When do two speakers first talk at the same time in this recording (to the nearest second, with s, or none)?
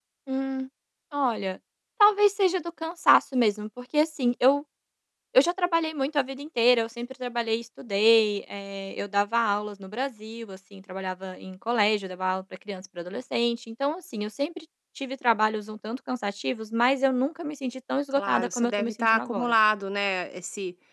18 s